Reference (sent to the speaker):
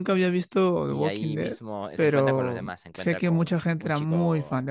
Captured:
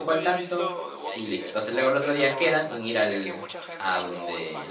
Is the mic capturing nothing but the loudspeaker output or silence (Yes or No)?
No